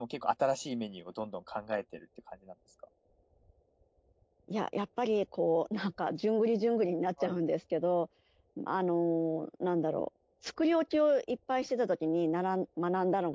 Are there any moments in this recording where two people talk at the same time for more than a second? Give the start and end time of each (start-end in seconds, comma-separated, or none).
none